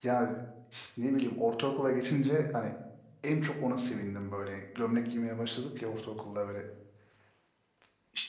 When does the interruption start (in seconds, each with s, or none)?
none